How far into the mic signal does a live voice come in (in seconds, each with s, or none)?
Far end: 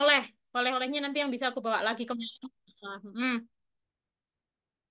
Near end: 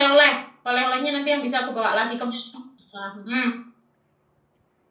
none